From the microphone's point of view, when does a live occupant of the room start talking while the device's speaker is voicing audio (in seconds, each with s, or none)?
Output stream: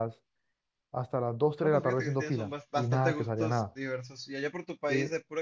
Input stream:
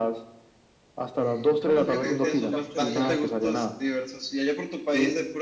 1.1 s